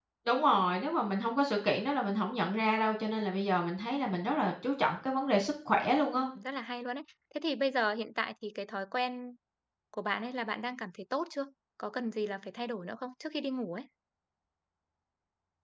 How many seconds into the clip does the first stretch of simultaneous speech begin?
none

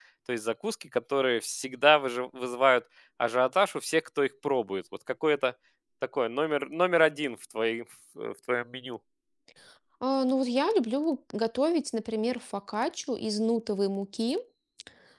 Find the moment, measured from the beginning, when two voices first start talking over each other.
none

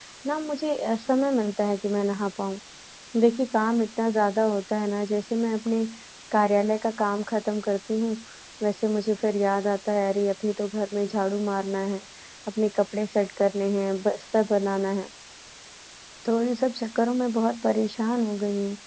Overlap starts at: none

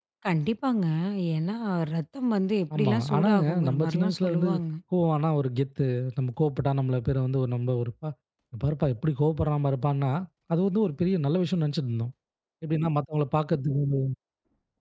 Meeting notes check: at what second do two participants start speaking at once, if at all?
3 s

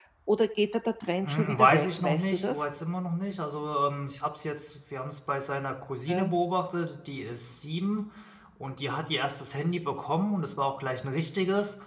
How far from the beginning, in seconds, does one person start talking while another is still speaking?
1 s

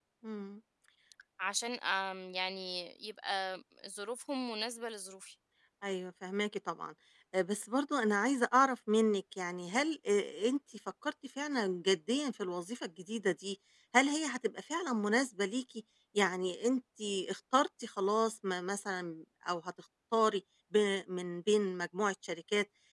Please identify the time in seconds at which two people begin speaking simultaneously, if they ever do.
none

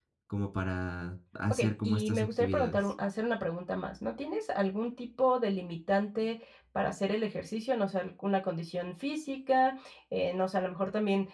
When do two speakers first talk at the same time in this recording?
2 s

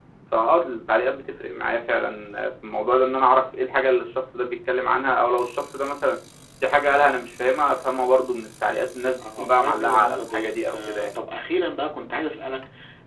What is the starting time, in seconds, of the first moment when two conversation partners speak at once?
9 s

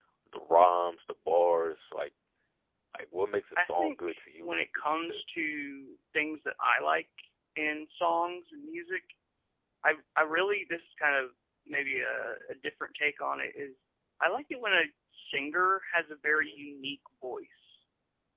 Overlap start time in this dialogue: 4 s

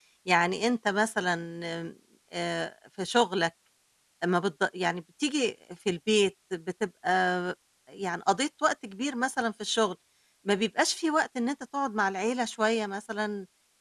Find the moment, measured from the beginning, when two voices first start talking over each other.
none

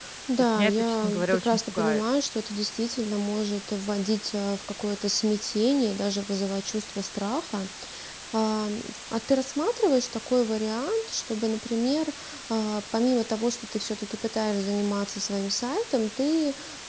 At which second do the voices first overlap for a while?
1 s

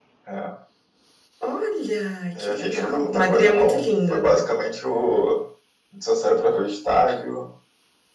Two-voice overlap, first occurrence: 2 s

